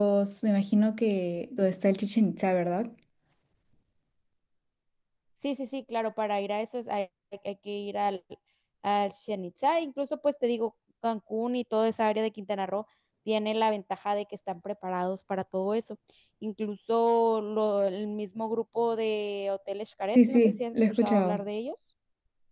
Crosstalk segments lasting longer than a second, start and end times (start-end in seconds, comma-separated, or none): 20.1-21.4